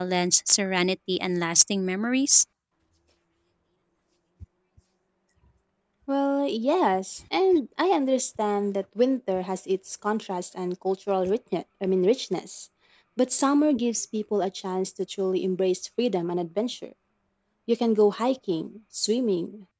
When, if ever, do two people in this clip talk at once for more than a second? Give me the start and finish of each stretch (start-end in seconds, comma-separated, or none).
none